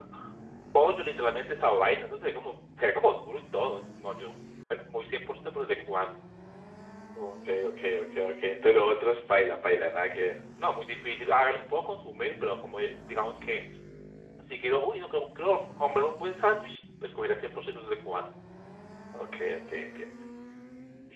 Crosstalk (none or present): none